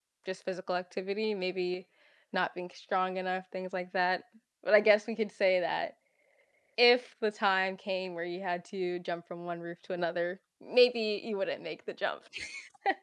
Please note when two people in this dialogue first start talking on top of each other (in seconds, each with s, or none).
none